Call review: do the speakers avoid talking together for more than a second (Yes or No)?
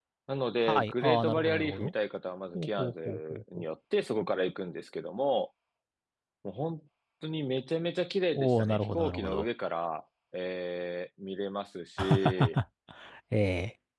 No